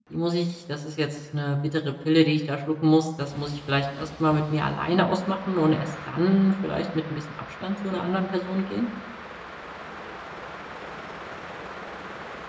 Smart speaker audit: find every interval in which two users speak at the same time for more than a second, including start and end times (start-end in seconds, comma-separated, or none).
none